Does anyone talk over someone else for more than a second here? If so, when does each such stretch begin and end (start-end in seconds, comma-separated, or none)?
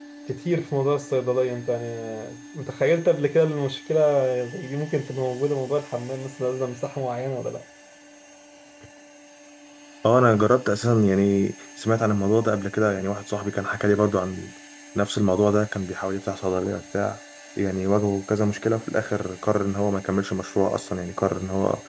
none